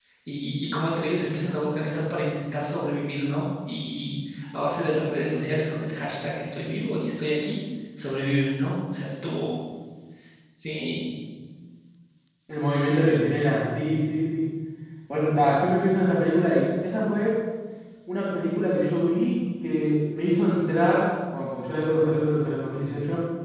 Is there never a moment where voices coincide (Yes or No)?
Yes